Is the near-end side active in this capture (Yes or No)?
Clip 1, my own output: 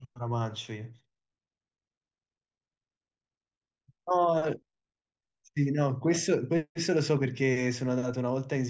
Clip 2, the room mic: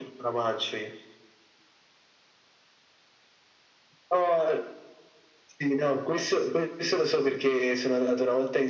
No